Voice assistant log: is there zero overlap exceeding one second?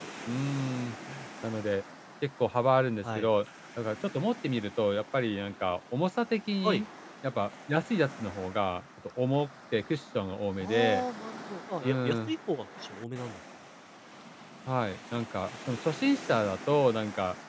Yes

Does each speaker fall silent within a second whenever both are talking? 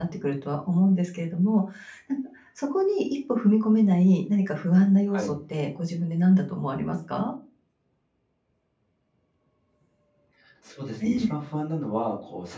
Yes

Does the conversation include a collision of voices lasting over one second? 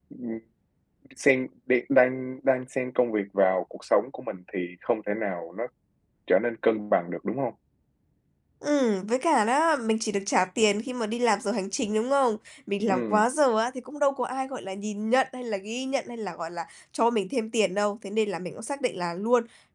No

